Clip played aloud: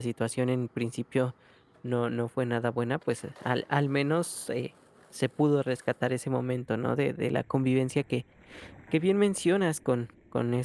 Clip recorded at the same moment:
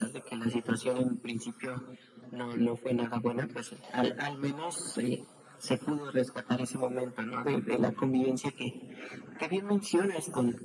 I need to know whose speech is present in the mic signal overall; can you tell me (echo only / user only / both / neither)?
echo only